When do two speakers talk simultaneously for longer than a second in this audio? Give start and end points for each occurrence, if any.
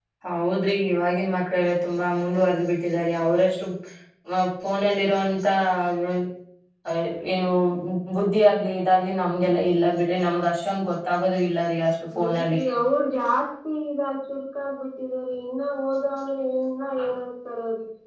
none

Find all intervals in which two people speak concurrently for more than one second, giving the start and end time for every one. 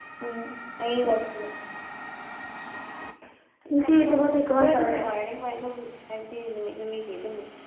3.7-5.0

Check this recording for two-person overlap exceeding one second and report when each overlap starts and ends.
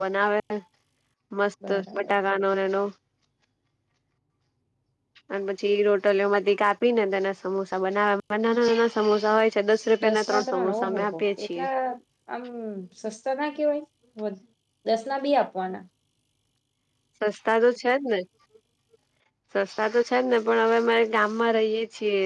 10.0-11.7

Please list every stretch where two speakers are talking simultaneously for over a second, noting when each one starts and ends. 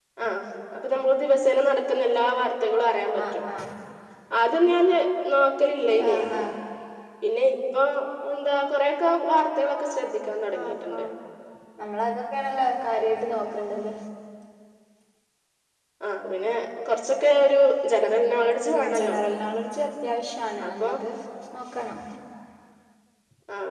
none

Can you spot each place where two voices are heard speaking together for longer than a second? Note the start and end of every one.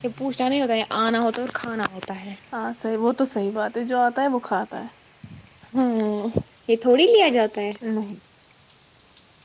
none

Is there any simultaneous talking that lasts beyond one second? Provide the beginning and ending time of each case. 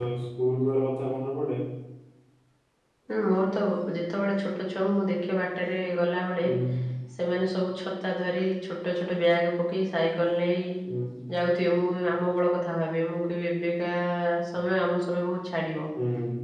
none

